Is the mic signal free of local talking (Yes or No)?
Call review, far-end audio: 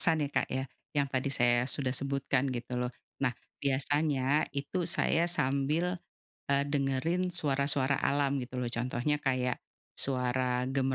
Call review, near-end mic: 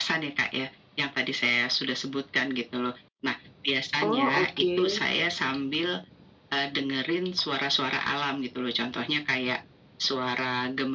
No